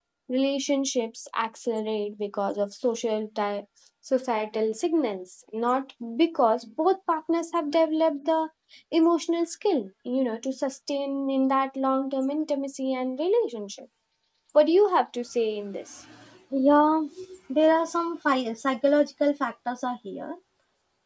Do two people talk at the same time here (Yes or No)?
No